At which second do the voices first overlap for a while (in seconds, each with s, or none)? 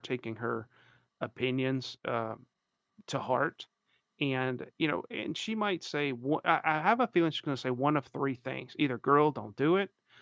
none